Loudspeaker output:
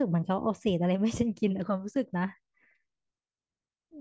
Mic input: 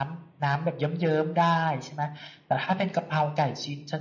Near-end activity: present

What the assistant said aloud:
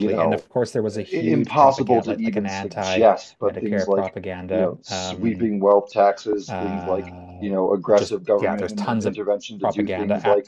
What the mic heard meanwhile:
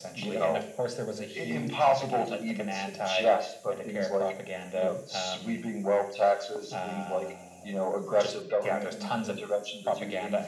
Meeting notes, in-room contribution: none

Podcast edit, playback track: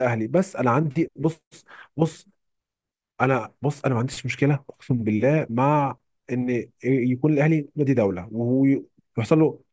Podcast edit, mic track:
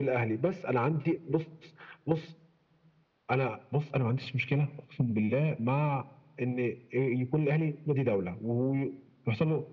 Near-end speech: none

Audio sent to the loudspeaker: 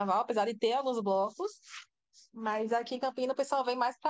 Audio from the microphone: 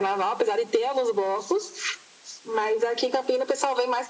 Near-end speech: none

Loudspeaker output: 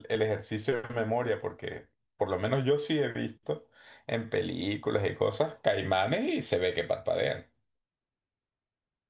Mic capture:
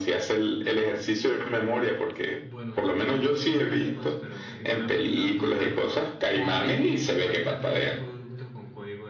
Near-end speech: present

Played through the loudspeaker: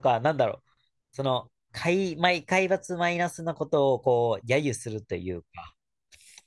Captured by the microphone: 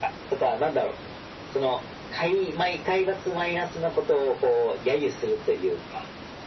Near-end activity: none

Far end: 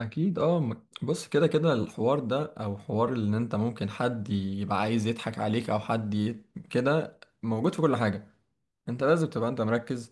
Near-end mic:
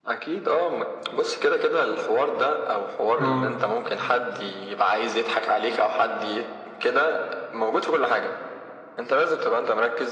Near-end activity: present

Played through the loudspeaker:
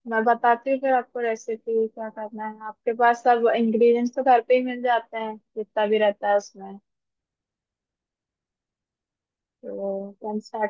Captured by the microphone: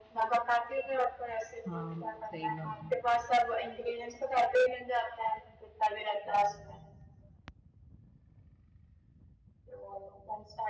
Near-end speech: present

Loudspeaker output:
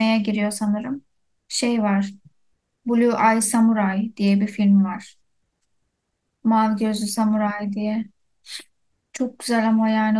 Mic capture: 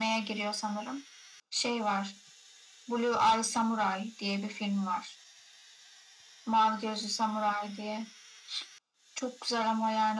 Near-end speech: none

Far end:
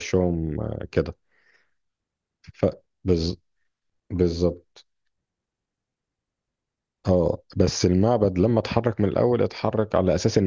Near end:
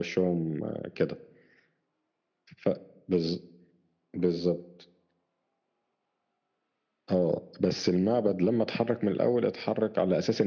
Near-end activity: none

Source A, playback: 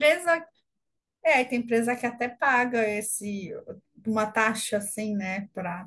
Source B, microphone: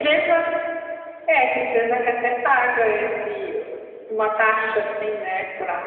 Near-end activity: none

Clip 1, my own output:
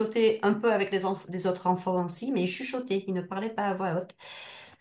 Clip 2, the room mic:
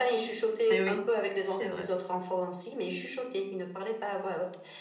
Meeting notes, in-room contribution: present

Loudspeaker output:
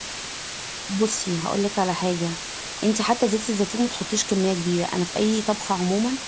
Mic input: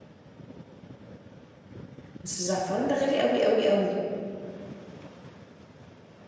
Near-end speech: present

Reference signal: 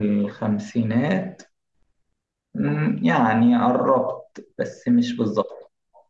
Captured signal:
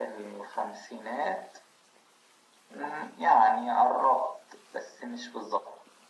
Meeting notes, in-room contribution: none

